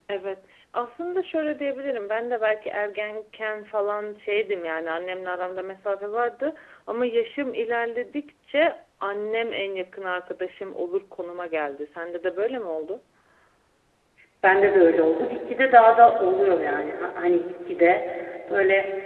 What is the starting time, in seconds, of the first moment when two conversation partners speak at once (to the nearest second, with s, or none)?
none